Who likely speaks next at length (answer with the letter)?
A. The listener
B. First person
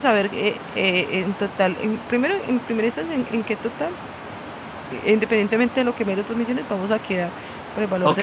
A